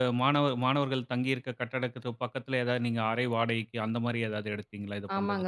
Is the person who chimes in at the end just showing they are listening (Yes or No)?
No